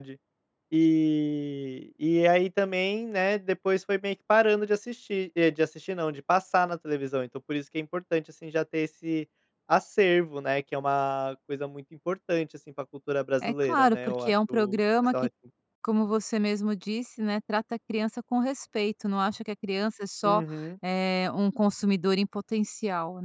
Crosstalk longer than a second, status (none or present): present